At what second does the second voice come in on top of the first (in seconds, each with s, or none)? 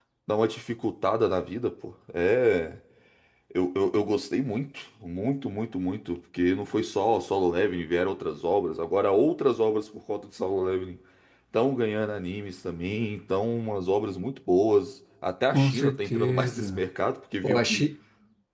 15.5 s